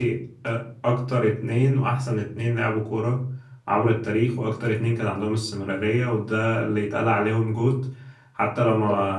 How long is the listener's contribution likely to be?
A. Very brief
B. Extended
A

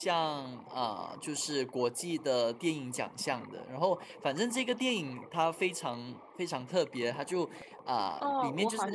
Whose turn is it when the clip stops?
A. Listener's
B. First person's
A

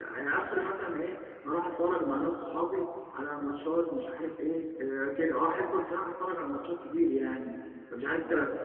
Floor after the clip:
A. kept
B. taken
A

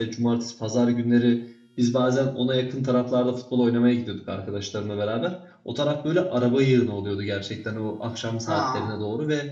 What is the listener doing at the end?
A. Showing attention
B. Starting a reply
A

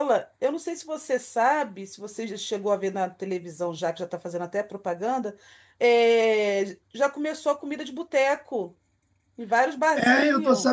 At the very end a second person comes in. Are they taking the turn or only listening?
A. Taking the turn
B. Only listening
A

